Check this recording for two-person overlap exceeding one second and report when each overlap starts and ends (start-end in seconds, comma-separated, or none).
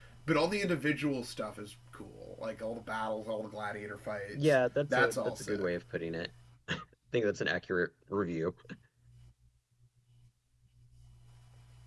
4.3-5.7